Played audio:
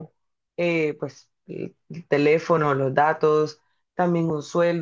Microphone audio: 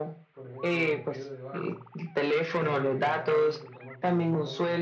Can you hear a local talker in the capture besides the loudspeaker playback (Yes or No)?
Yes